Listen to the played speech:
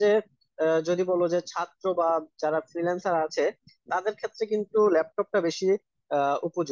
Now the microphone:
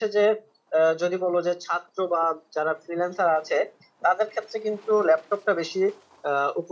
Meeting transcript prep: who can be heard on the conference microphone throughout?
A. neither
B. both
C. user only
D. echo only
D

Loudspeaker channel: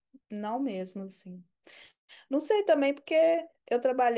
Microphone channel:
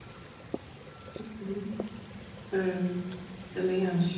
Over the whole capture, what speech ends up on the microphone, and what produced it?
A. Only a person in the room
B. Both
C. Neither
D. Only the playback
A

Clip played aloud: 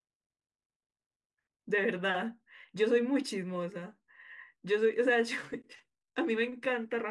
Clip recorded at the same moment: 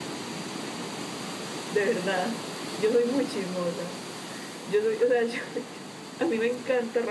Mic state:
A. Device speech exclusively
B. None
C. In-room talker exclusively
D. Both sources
A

